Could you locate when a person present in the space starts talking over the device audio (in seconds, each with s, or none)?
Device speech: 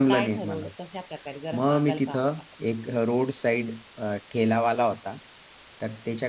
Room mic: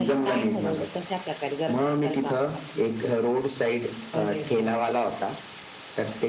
4.1 s